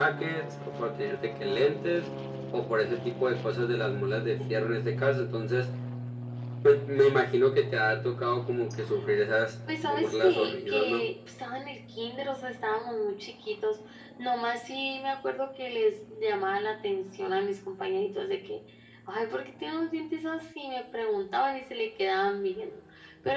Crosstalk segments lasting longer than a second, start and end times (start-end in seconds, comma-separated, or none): 9.8-11.1